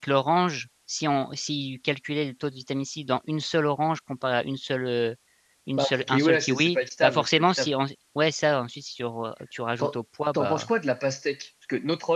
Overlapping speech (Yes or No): Yes